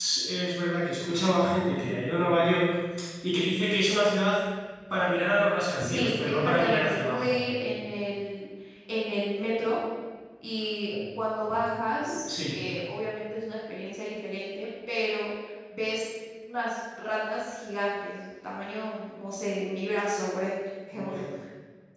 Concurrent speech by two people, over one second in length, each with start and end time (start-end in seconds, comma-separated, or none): 5.8-7.3